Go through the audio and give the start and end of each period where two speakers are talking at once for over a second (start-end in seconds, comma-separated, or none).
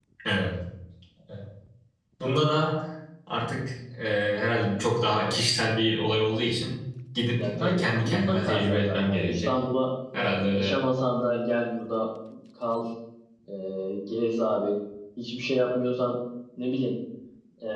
7.4-9.5